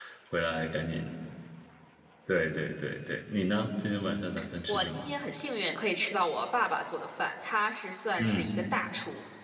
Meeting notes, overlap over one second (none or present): none